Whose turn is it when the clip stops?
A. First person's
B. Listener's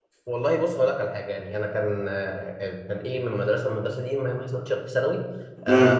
A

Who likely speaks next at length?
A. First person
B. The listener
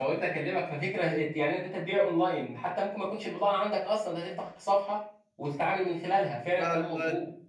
B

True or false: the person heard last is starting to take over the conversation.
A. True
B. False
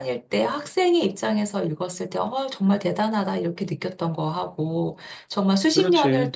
B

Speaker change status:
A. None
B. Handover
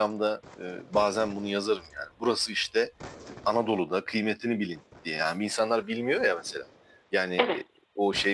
A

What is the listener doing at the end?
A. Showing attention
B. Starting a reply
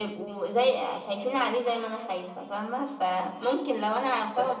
A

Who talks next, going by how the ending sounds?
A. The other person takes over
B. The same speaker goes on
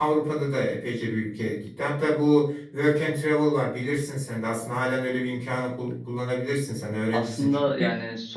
A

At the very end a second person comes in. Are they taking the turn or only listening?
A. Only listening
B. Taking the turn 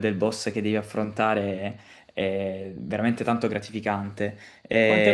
B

